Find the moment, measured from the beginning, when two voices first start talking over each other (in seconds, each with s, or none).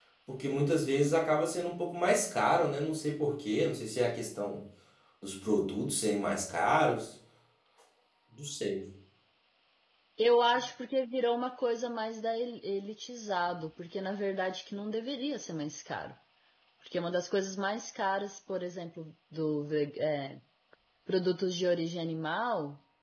none